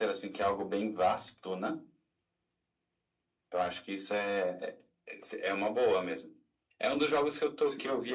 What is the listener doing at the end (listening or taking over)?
listening